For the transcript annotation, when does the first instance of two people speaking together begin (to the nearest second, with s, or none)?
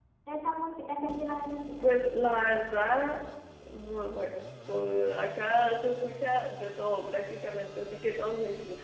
none